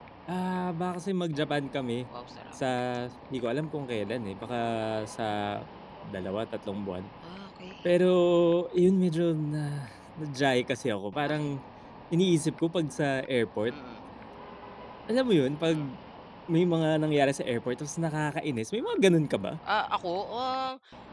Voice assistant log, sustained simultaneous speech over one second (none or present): none